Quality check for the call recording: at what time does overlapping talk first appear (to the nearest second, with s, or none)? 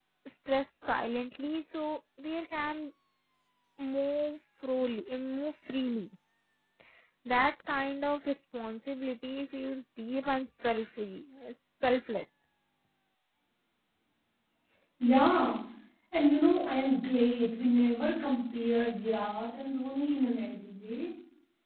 none